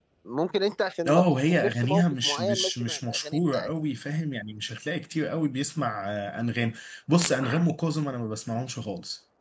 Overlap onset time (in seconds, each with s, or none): 1.1 s